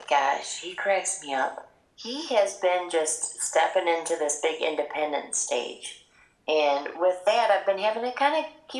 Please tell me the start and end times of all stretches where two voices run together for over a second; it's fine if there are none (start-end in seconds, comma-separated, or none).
none